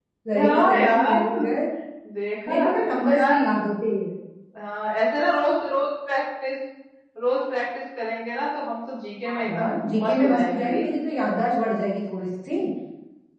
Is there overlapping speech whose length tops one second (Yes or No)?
Yes